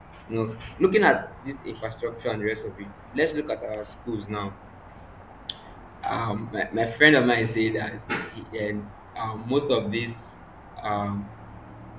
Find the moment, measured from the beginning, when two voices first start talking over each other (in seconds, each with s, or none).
none